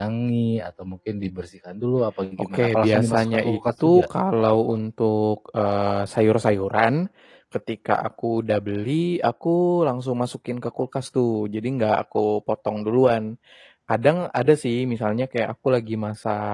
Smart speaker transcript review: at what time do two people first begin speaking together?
2.4 s

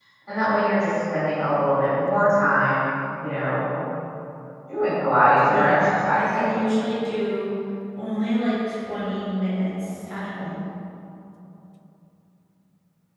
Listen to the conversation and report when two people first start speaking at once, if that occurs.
5.5 s

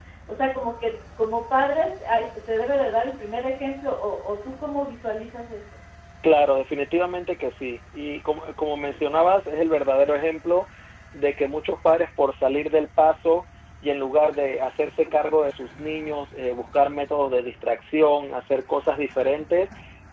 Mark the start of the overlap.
none

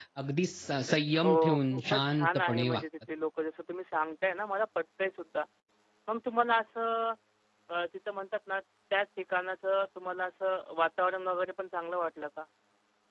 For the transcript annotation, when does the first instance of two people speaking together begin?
1.2 s

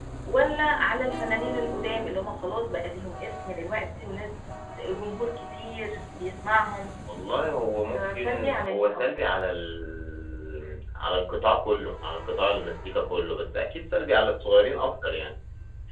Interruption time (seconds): 7.9 s

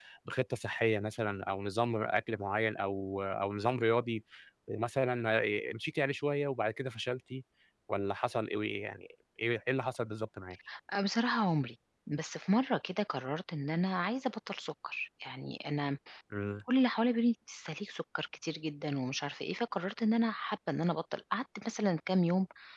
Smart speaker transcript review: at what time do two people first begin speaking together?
none

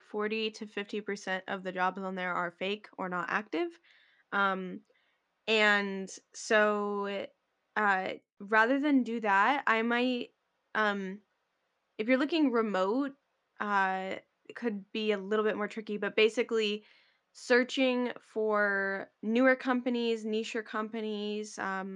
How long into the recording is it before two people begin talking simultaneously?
none

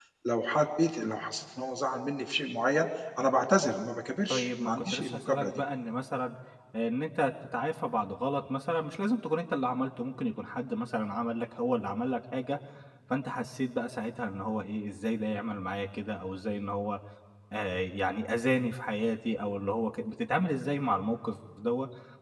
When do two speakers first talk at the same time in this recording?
4.3 s

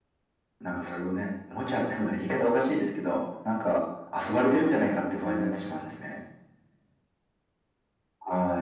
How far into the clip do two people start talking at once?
4.3 s

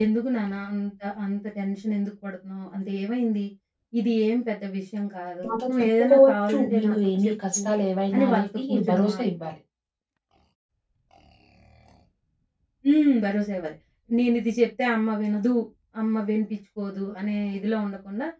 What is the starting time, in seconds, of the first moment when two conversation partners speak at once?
5.4 s

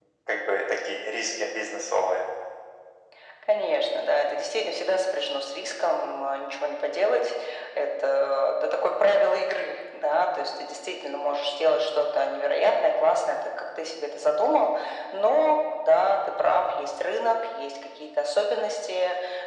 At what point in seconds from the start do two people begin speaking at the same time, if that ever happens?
none

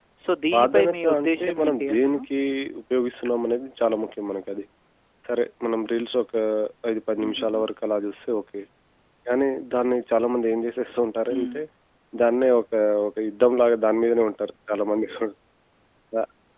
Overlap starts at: 0.5 s

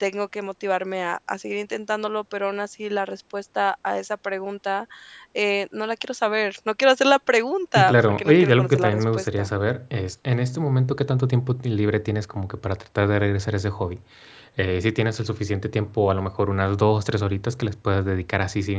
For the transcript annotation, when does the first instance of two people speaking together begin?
7.8 s

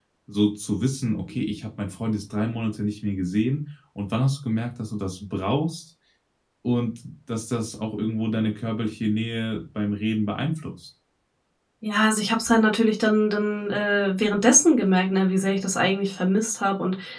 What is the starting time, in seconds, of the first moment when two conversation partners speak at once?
none

